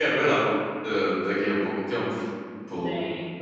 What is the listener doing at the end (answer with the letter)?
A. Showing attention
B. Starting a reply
A